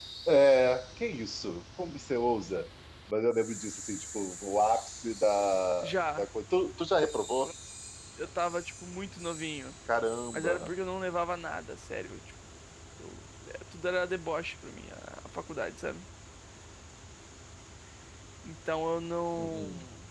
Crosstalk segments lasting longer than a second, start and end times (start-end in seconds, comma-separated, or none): none